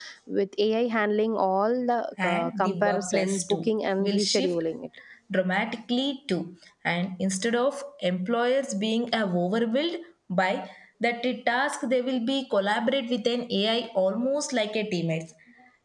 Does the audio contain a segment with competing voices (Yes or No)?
Yes